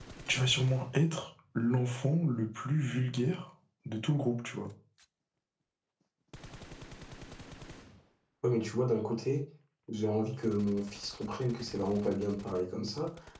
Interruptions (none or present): none